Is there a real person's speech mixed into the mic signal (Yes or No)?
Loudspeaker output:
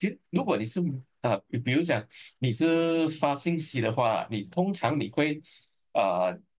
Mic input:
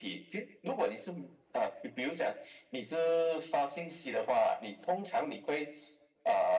No